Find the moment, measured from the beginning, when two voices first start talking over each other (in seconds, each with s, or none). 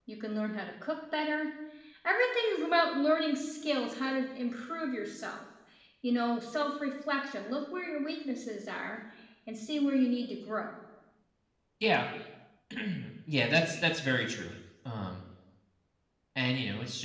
none